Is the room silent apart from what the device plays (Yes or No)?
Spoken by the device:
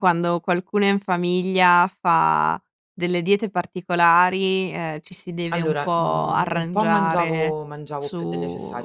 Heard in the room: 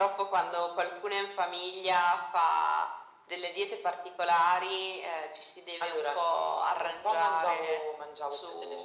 Yes